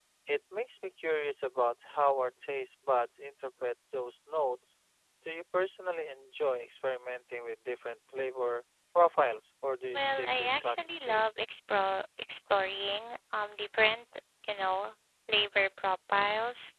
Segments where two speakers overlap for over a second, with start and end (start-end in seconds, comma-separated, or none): 9.9-11.3